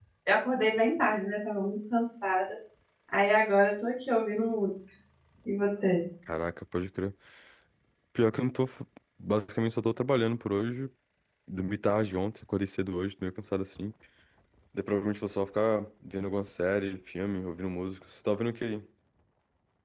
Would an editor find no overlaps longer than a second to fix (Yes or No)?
Yes